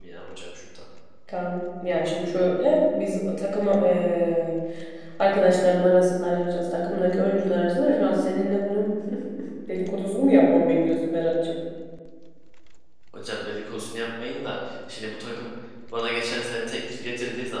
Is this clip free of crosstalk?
Yes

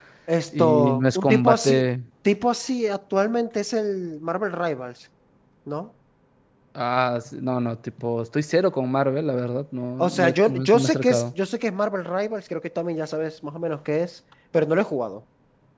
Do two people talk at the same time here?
Yes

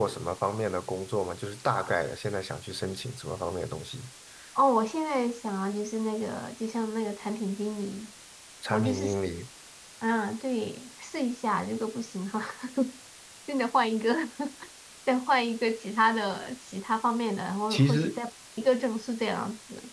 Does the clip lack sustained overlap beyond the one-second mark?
Yes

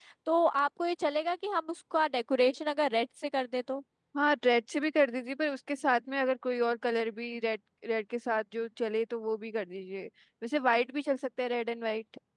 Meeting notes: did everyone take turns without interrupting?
Yes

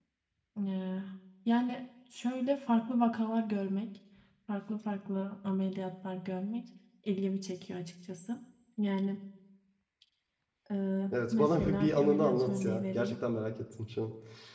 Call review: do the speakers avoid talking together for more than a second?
No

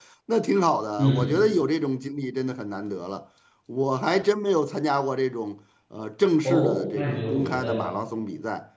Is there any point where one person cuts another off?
Yes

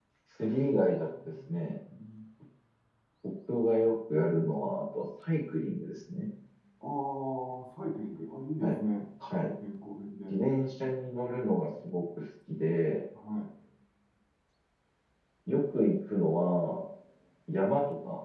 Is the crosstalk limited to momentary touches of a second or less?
Yes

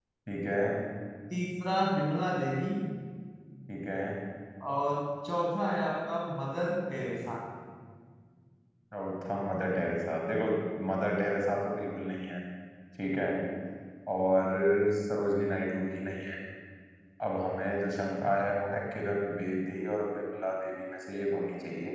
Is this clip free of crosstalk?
Yes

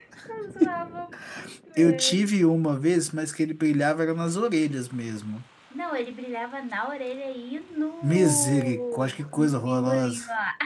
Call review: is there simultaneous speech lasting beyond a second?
Yes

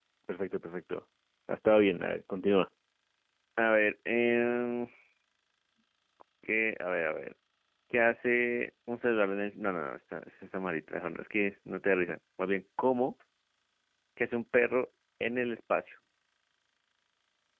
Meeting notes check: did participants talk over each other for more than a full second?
No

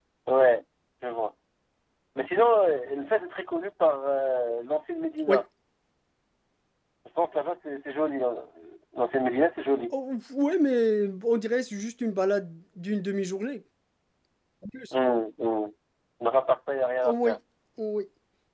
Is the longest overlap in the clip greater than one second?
No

